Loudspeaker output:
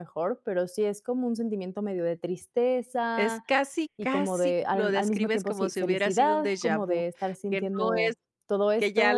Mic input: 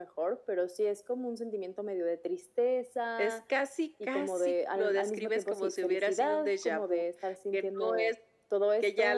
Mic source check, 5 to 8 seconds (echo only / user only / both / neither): echo only